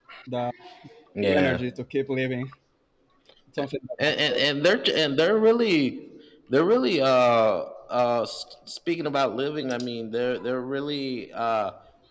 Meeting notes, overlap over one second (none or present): none